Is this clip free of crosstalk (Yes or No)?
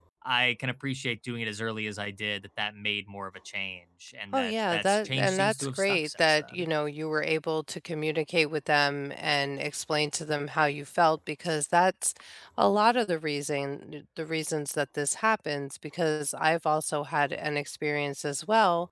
No